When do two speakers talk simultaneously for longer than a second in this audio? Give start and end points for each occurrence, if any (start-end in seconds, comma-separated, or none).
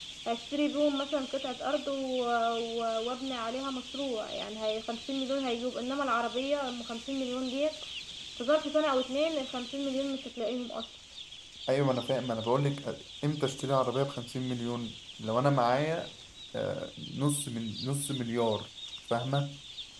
none